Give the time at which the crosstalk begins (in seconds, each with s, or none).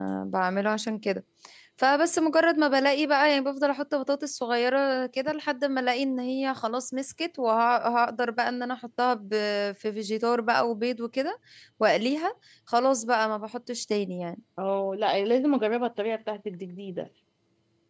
none